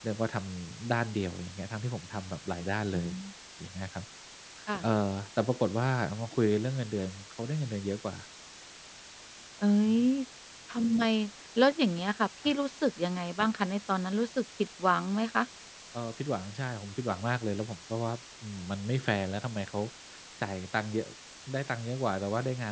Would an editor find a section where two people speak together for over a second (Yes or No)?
No